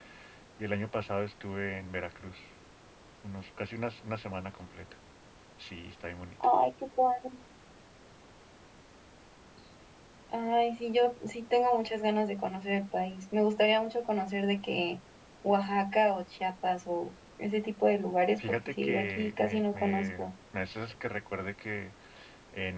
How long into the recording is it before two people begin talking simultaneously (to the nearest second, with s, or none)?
18 s